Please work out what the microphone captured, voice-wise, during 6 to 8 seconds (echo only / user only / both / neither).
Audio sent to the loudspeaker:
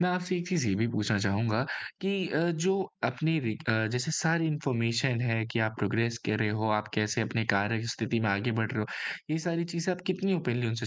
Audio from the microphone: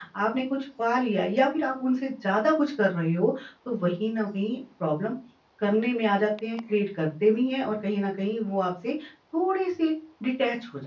user only